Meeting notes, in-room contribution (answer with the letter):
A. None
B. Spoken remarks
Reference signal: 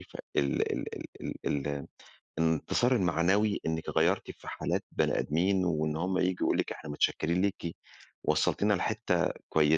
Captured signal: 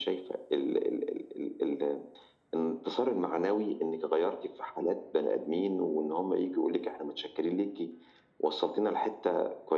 A